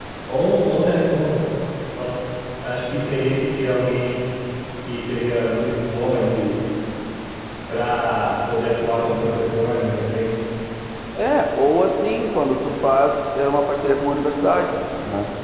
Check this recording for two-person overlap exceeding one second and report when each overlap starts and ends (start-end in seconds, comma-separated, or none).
none